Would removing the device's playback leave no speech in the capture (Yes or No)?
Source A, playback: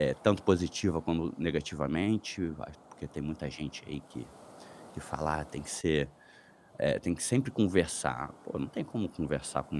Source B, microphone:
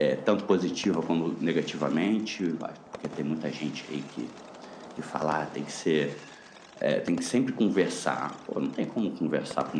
Yes